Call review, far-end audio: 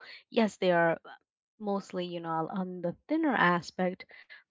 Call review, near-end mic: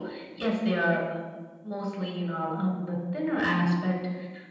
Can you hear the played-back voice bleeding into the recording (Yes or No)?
Yes